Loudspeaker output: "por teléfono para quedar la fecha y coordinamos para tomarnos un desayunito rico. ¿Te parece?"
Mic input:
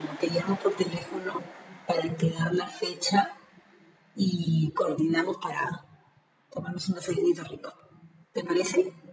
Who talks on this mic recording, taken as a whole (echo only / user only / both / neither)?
echo only